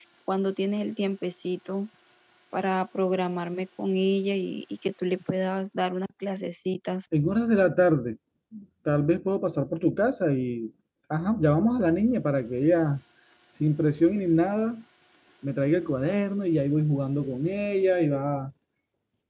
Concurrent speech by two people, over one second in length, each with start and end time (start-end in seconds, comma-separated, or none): none